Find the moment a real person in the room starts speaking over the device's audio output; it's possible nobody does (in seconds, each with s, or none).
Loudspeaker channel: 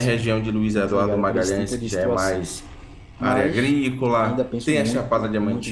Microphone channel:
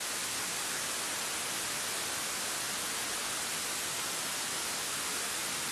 none